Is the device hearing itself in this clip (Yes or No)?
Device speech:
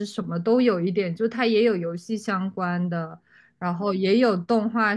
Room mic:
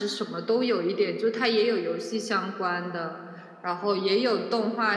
Yes